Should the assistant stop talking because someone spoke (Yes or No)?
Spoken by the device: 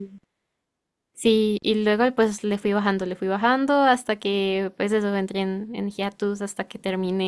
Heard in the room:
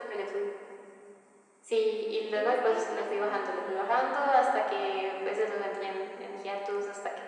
Yes